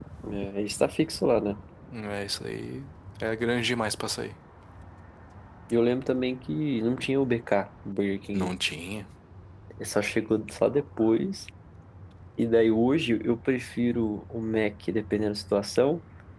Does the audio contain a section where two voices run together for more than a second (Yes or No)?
No